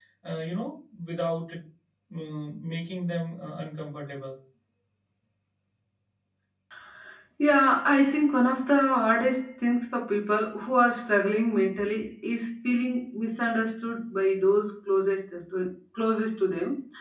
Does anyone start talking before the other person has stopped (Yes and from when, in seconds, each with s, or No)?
No